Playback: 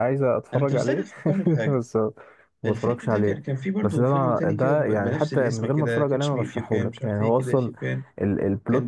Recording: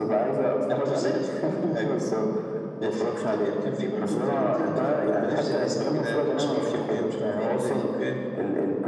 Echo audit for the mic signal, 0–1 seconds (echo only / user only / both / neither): echo only